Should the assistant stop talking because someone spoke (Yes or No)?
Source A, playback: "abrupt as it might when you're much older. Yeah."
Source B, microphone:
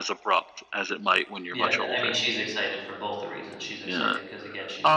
Yes